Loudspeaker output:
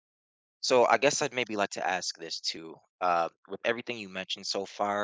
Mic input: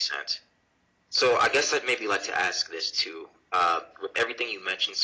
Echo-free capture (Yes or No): No